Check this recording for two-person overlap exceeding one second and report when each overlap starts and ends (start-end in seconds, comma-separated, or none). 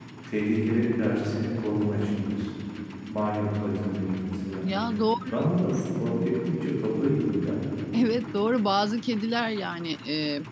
none